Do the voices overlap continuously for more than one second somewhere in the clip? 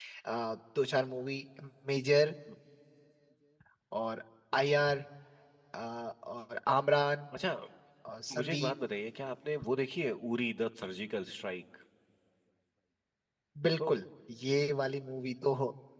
No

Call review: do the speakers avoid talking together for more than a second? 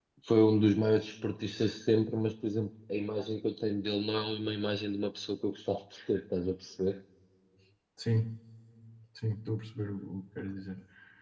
Yes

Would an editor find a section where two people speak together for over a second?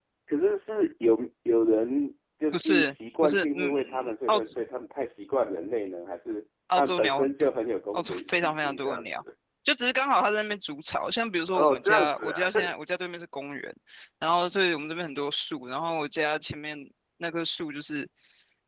Yes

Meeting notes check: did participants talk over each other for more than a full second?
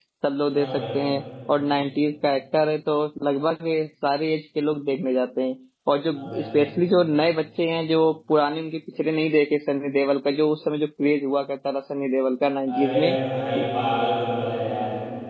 No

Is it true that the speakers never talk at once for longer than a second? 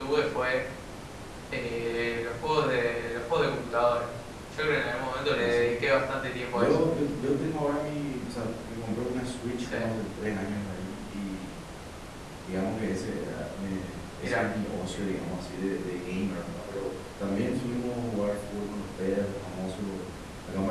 Yes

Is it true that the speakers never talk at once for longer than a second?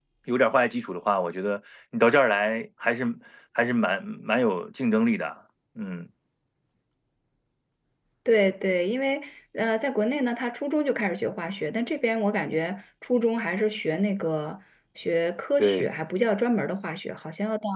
Yes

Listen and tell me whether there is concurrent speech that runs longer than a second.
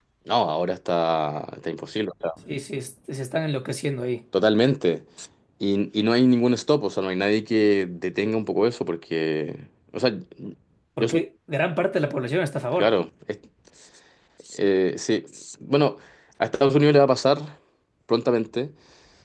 No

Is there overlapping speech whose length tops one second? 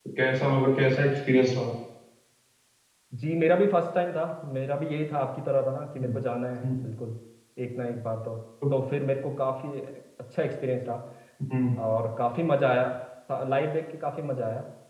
No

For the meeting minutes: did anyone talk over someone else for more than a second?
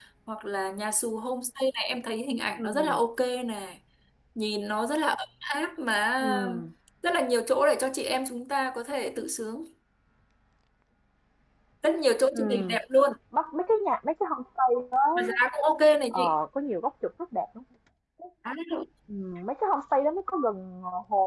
No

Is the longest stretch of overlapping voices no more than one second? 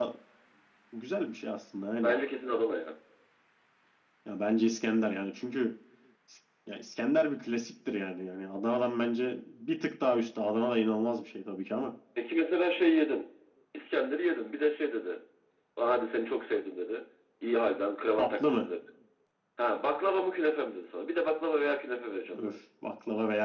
Yes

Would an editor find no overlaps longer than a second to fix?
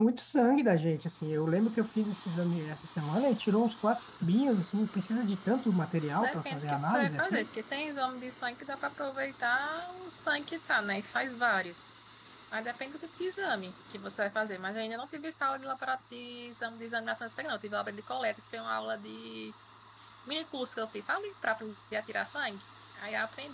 No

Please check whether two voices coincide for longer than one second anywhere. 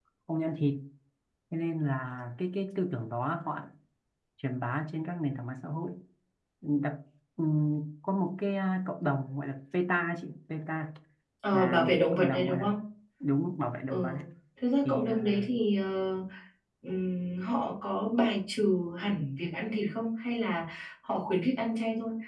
Yes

